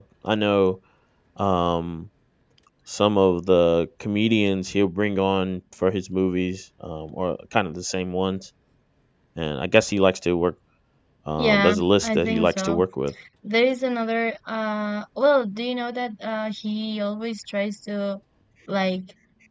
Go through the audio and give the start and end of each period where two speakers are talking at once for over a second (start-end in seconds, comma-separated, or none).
11.4-12.8